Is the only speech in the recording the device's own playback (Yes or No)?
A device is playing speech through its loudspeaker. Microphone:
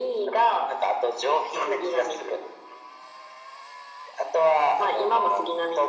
Yes